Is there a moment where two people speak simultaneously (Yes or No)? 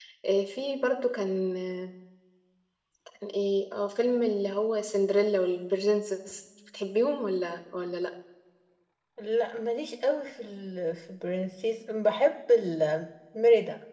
No